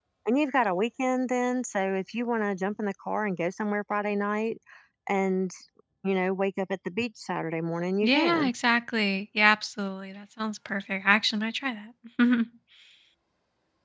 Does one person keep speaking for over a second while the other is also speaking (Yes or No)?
No